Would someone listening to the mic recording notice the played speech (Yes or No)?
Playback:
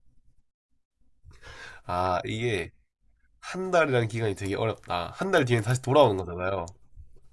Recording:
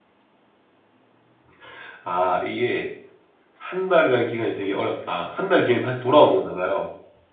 Yes